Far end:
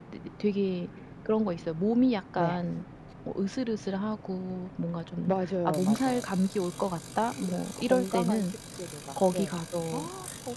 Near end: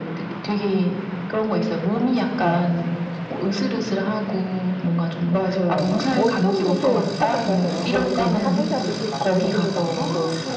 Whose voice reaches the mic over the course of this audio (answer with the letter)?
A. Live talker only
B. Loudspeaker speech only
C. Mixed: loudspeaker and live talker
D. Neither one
C